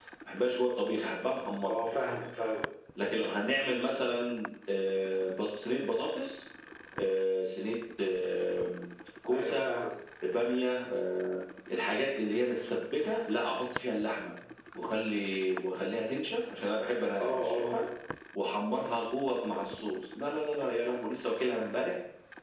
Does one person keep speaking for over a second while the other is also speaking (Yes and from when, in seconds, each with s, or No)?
No